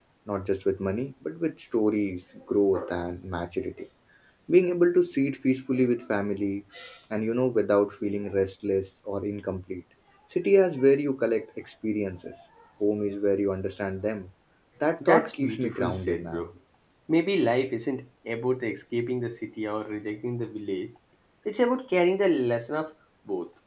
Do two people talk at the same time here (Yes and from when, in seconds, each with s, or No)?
Yes, from 15.0 s